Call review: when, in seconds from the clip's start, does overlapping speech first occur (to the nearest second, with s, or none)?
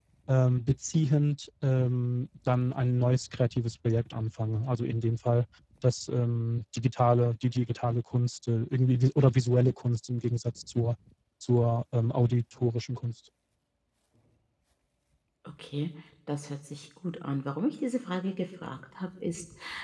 none